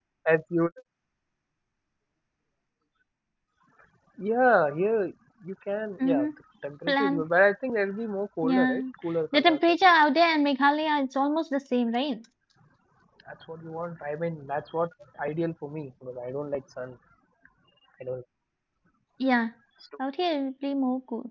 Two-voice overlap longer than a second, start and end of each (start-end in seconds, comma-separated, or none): none